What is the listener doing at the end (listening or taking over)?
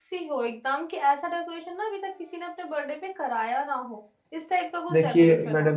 taking over